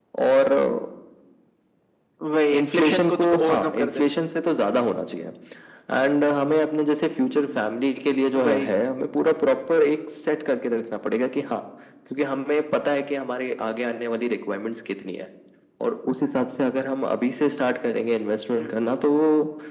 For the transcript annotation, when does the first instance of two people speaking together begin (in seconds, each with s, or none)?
2.5 s